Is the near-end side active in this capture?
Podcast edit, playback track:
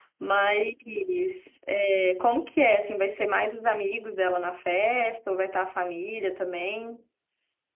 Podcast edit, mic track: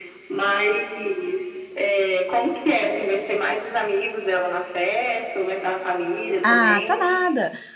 Yes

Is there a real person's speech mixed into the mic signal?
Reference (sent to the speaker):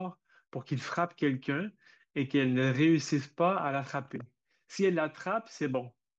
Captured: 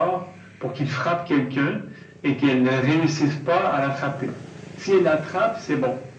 No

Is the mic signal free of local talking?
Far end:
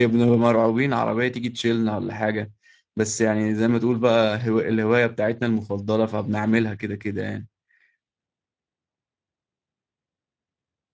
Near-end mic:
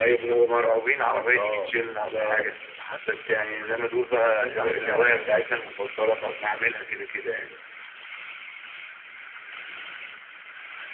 No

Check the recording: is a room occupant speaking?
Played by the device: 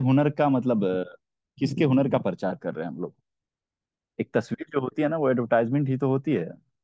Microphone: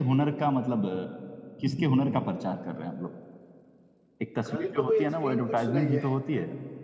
Yes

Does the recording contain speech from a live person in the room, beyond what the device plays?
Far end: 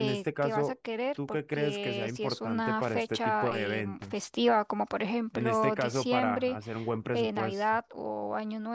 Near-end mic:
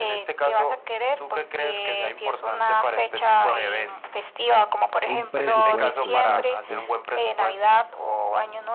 Yes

